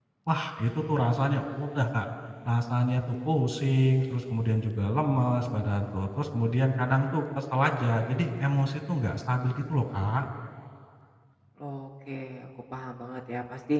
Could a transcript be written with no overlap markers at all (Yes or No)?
Yes